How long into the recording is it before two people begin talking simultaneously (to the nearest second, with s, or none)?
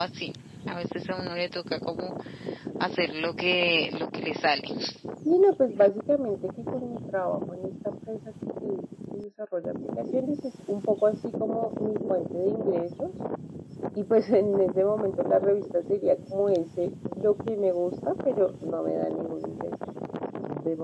none